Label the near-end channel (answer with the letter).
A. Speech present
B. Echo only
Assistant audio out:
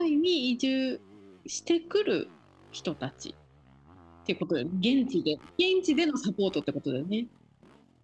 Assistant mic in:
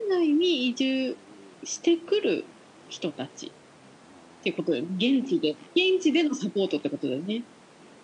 B